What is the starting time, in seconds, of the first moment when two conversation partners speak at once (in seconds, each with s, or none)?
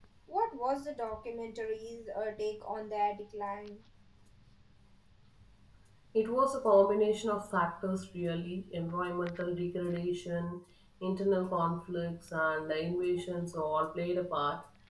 none